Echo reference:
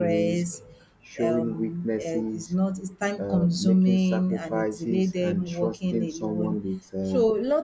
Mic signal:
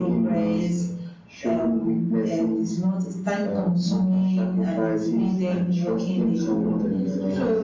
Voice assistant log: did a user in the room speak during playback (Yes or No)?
Yes